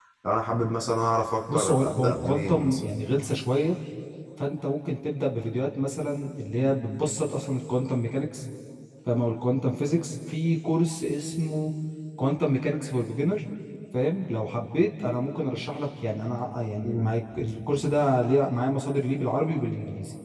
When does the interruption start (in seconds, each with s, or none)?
1.5 s